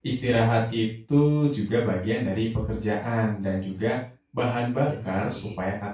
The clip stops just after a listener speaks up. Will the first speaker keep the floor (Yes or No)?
Yes